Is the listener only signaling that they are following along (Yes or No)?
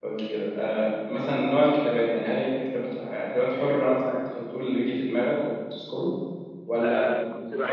No